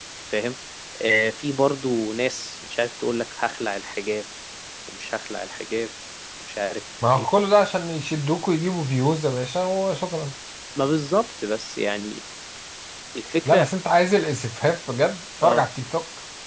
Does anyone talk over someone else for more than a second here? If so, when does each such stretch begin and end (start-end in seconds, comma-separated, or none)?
none